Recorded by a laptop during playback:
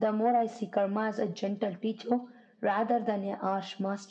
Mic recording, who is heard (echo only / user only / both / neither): echo only